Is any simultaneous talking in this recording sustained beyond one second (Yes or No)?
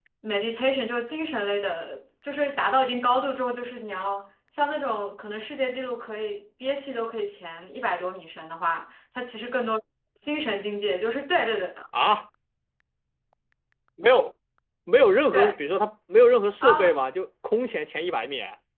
No